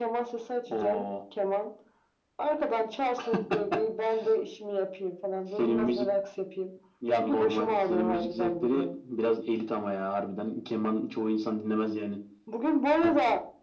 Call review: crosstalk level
present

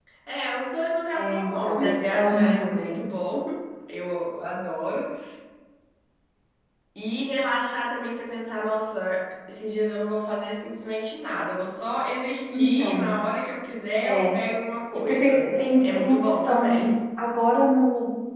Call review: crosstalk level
present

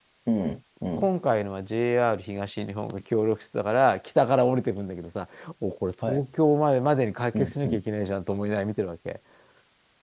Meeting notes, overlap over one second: none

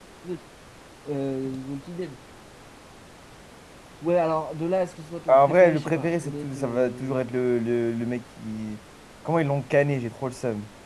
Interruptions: present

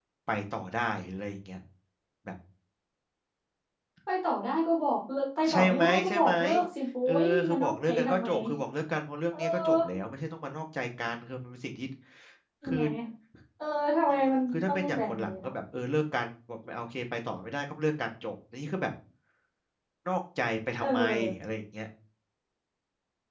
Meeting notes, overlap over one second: present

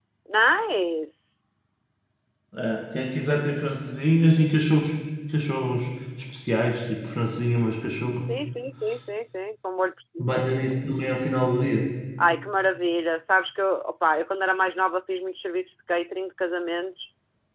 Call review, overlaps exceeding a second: none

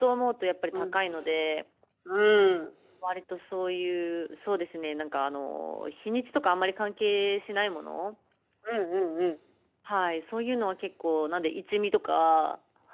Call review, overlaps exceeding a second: none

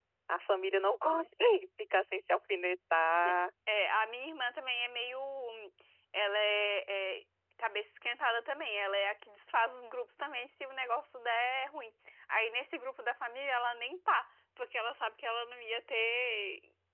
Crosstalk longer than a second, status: none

